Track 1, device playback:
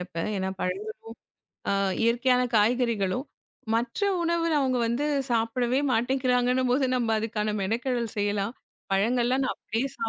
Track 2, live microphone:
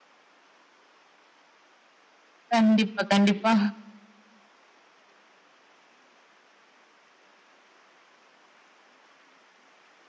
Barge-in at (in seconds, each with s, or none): 2.5 s